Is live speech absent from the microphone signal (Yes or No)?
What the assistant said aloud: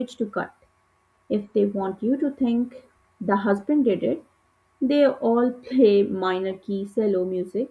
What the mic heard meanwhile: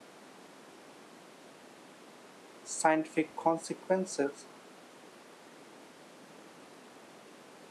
No